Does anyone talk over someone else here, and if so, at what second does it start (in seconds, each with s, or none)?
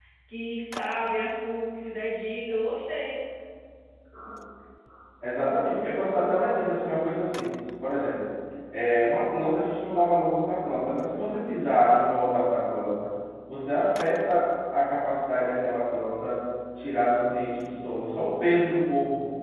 none